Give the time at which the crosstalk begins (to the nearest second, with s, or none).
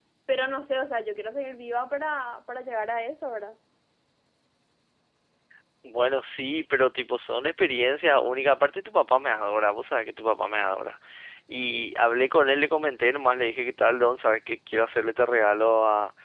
none